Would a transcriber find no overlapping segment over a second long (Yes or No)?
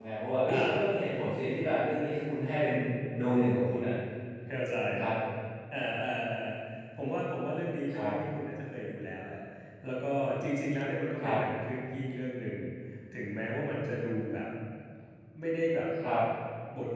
Yes